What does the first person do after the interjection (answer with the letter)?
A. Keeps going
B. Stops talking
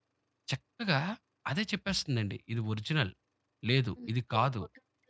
B